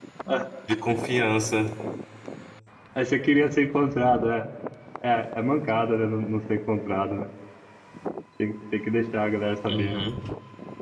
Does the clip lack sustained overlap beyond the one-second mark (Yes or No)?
Yes